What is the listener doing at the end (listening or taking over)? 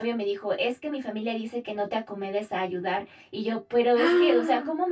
listening